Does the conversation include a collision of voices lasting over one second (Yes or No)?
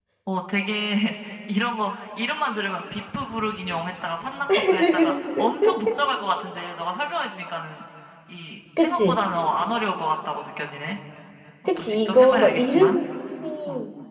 Yes